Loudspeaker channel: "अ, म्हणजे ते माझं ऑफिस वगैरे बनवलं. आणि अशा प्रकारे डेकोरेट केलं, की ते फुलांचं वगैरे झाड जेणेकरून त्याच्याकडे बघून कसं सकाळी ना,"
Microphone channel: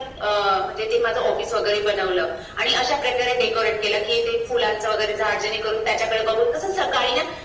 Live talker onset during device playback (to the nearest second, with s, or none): none